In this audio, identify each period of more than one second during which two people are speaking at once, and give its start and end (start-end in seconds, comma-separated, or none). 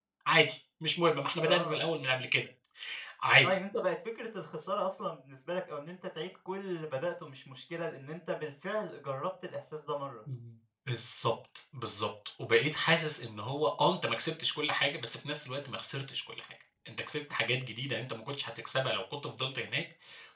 none